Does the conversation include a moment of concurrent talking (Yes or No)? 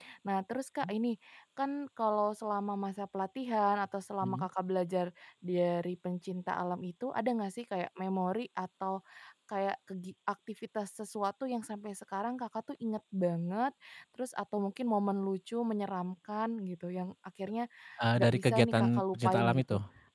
Yes